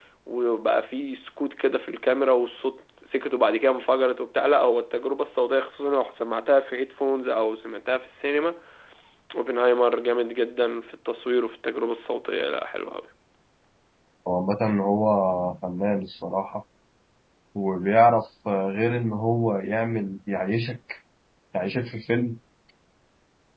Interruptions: none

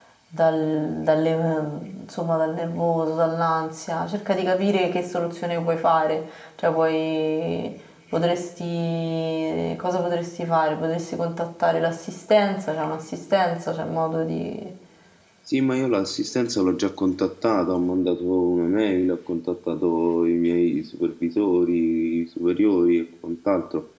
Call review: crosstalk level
none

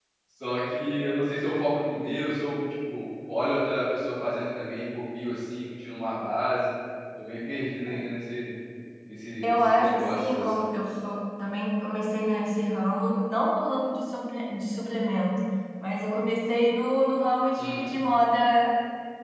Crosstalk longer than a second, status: present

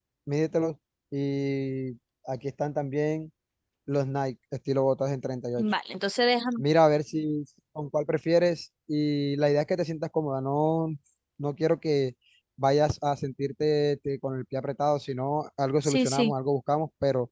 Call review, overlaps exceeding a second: none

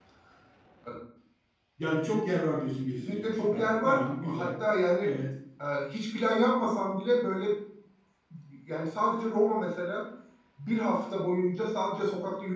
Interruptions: present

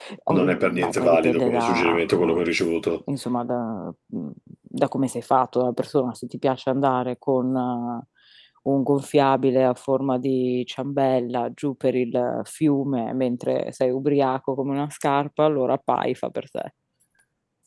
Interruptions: present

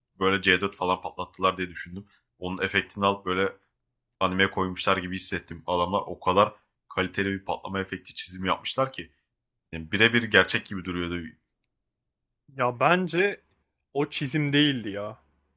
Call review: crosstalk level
none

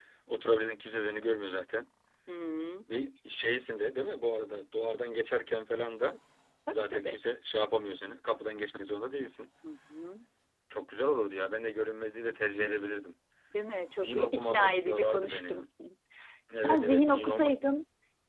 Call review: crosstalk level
present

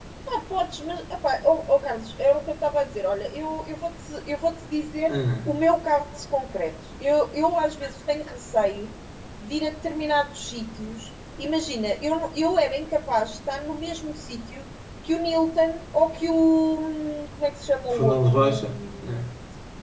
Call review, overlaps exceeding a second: present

